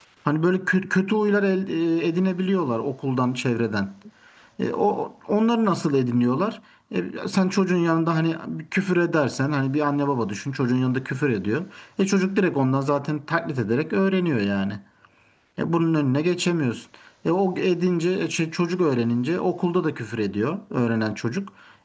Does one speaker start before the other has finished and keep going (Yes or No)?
No